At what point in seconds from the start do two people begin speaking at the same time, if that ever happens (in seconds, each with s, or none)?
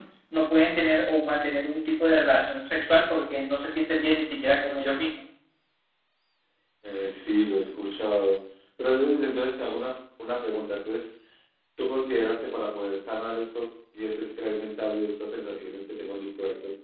none